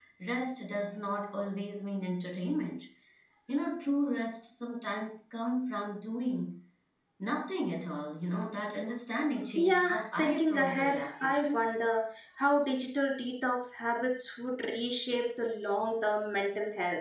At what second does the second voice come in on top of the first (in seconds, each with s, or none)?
9.6 s